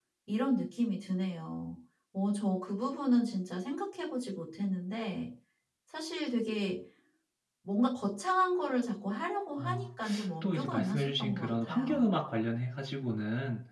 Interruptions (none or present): present